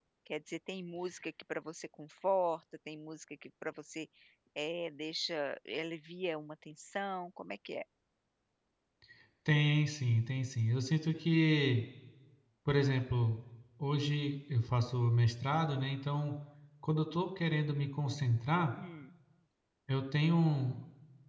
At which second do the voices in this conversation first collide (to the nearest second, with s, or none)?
none